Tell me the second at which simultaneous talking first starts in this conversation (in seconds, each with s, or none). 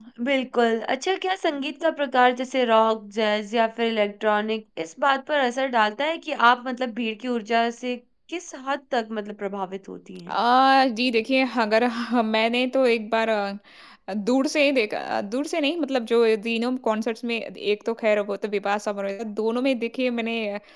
none